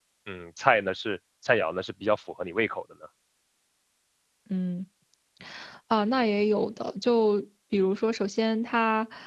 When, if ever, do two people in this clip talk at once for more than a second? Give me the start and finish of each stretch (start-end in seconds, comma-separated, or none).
none